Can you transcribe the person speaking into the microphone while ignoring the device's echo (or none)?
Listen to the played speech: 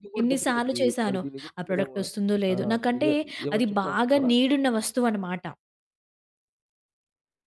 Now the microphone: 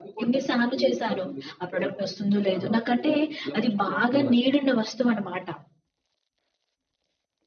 అదేలెండి.